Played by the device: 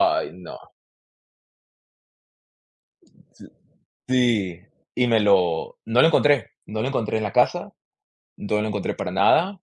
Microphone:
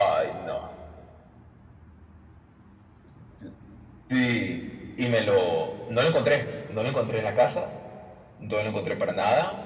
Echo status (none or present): present